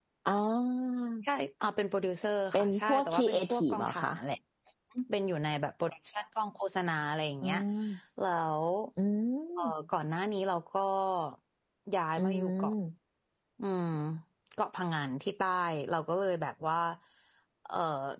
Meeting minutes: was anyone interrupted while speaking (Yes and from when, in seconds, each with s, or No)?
Yes, from 2.5 s